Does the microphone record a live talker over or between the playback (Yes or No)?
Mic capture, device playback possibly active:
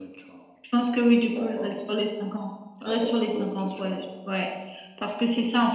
No